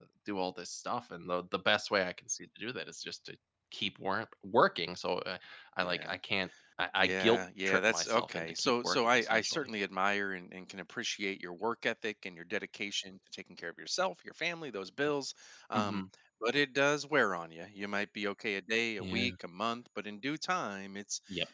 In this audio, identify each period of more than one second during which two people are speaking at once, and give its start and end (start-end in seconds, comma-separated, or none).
7.0-9.7